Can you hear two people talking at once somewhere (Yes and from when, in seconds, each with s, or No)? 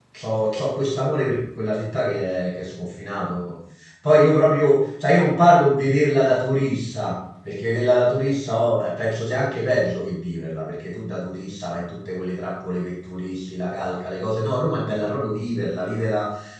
No